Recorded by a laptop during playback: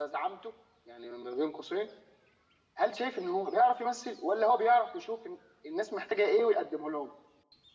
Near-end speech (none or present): present